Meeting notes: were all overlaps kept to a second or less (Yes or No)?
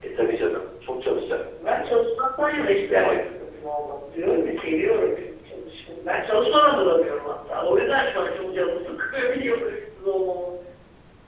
Yes